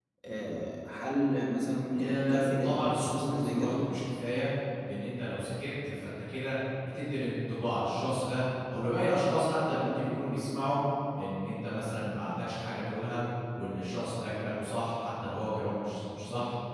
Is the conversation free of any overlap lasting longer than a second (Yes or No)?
No